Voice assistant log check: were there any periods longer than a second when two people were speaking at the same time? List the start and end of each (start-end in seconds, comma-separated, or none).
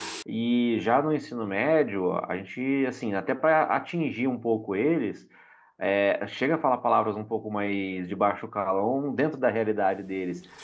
none